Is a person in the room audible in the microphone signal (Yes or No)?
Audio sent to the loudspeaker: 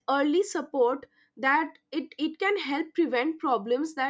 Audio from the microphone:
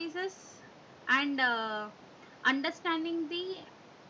Yes